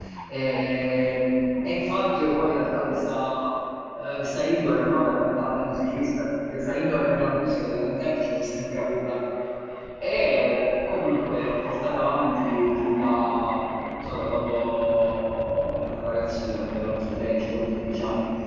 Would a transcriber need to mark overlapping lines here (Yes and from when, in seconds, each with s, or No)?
No